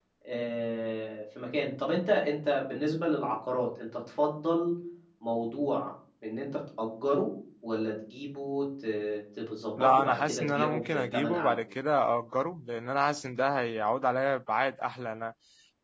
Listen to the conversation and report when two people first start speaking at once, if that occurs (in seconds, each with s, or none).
9.8 s